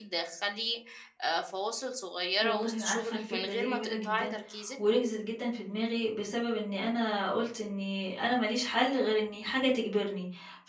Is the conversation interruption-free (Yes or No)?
No